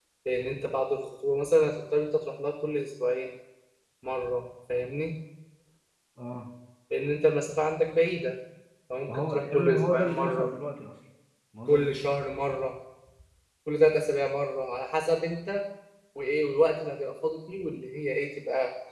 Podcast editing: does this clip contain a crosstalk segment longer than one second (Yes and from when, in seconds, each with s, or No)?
Yes, from 9.1 s